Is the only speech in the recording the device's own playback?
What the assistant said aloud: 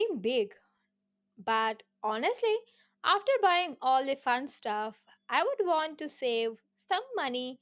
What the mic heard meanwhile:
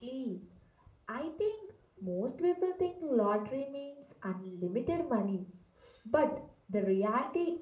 No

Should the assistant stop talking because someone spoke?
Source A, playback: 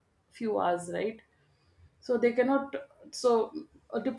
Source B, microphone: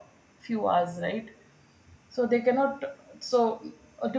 No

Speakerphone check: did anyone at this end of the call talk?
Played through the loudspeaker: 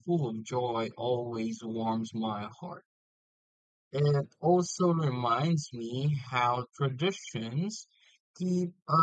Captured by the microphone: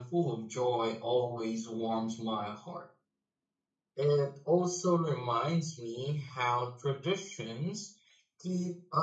No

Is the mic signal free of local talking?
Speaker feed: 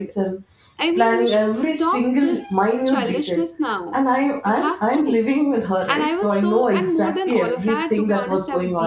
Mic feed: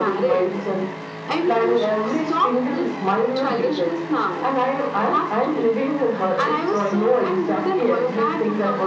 Yes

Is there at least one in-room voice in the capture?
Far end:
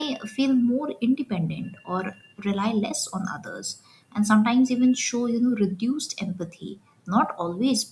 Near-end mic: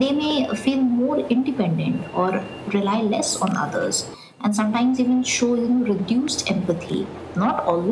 No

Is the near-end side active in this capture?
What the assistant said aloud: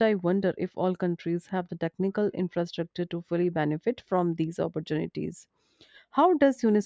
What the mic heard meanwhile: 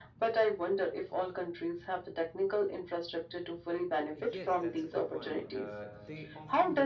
Yes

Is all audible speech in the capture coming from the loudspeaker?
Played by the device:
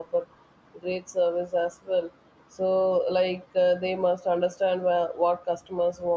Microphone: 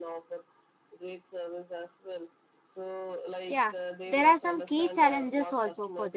No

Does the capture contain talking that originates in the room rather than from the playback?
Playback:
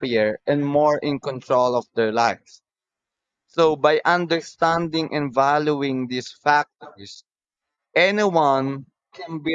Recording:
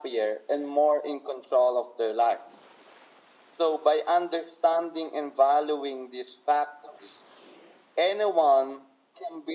No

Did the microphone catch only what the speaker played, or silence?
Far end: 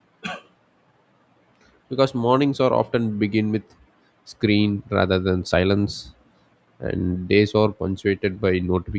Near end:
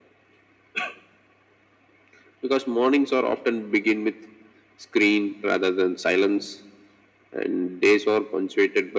Yes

